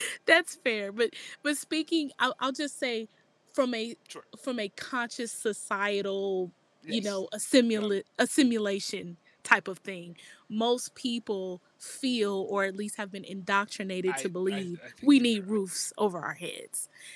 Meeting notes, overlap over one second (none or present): present